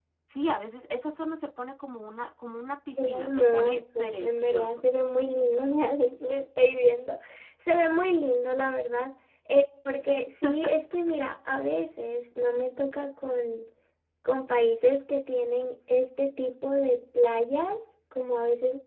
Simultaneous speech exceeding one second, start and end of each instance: 3.0-4.8

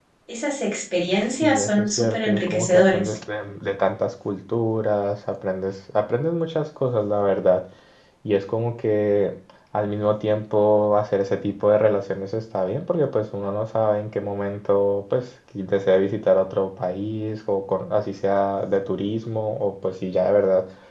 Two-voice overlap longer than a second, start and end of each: 1.4-3.1

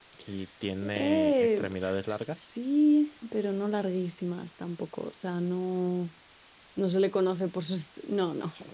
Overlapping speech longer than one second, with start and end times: 1.0-2.5

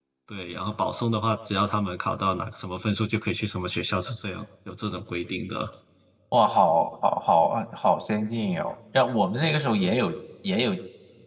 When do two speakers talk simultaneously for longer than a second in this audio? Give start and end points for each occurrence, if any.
none

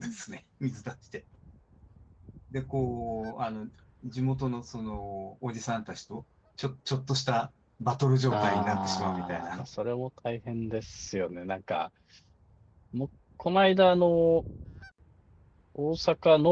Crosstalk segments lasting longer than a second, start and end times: 8.3-9.6

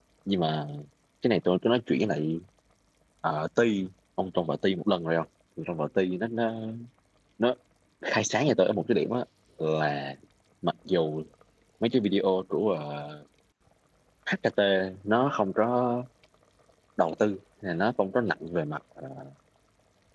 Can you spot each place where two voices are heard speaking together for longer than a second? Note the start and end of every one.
none

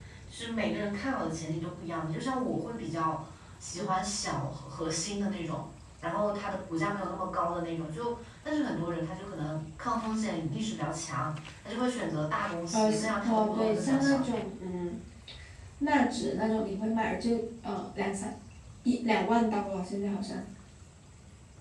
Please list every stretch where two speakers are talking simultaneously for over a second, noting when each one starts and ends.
12.7-14.4

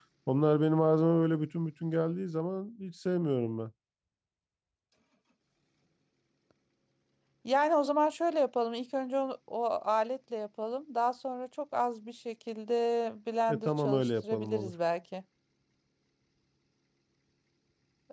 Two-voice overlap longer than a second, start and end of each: 13.5-14.7

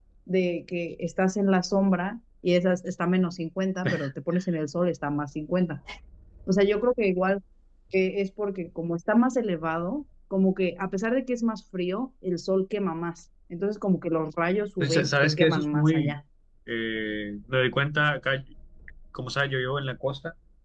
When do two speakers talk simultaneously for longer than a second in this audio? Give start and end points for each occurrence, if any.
14.8-16.1

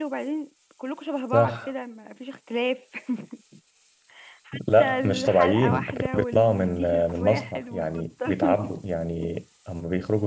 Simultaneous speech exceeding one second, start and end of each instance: 4.8-8.8

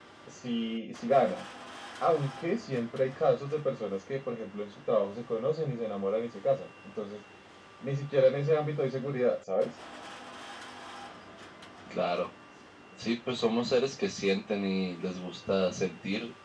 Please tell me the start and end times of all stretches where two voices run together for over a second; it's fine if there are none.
none

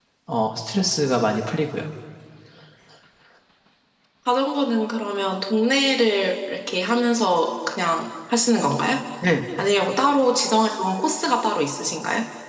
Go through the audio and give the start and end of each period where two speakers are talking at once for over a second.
none

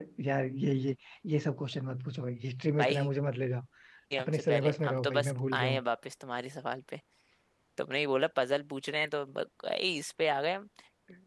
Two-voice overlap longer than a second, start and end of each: 4.2-5.8

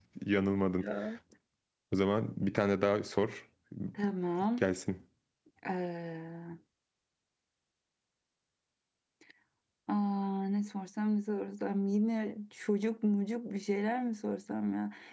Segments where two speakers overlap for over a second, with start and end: none

